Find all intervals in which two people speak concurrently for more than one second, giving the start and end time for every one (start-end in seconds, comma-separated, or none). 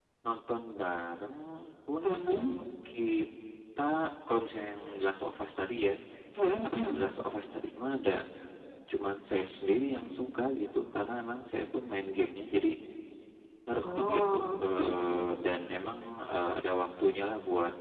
14.0-15.2